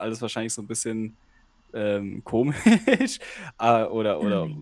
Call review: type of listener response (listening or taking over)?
listening